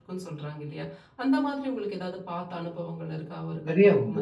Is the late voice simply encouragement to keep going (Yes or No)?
No